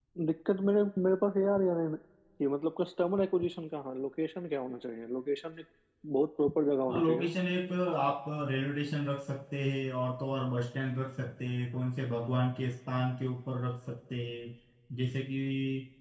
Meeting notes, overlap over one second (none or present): none